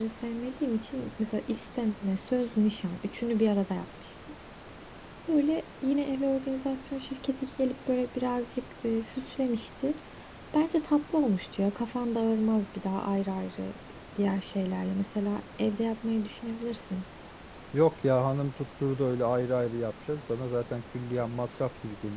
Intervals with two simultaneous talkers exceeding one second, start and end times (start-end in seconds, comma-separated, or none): none